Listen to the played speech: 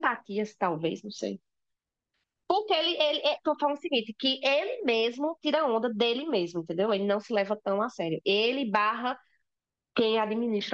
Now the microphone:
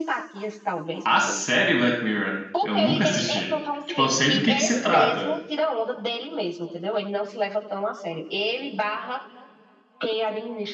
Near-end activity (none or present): present